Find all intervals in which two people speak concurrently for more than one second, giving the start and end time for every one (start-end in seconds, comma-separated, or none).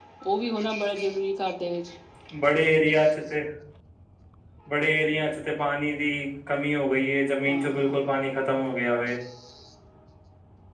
none